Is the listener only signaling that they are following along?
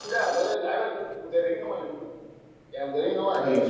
Yes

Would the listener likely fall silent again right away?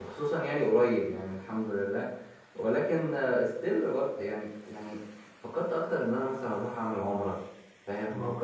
Yes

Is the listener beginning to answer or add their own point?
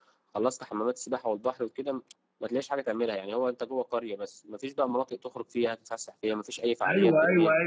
Yes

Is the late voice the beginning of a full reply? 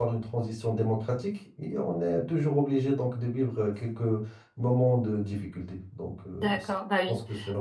Yes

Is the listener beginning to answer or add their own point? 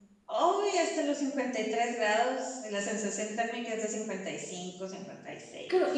Yes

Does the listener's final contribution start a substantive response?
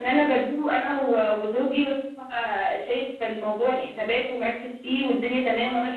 No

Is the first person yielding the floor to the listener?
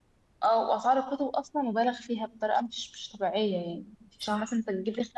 No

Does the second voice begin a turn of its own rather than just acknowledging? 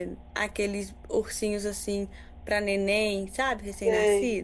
Yes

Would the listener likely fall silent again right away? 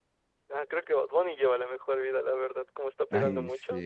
No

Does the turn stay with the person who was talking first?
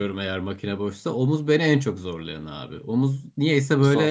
Yes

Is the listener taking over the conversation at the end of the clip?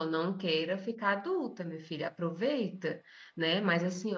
No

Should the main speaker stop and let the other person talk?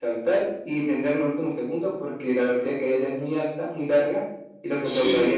No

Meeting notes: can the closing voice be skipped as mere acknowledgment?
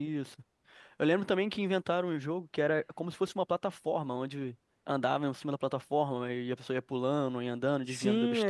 No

